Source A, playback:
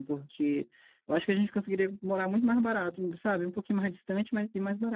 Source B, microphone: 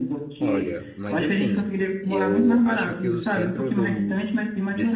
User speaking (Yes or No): Yes